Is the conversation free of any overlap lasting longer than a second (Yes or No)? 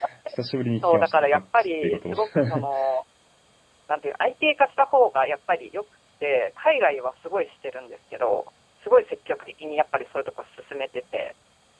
No